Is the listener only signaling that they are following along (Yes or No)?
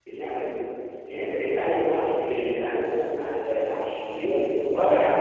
No